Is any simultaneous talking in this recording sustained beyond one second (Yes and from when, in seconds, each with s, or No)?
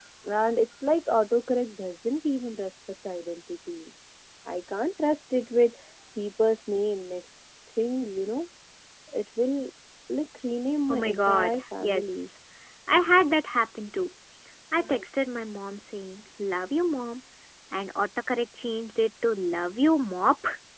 Yes, from 10.9 s